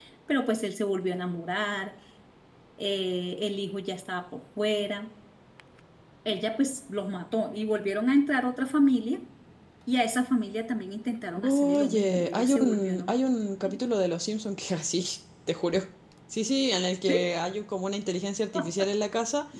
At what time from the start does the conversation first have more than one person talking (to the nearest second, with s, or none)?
11 s